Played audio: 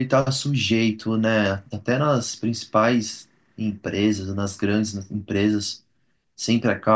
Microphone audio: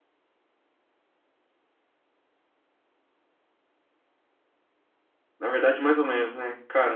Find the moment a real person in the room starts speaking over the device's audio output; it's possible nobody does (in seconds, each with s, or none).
5.4 s